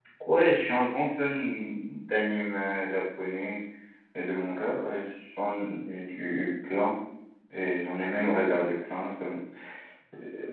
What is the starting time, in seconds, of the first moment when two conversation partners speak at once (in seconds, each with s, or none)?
none